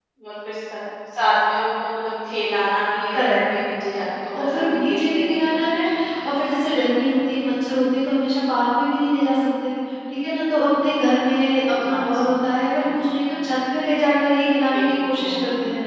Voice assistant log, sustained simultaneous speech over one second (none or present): present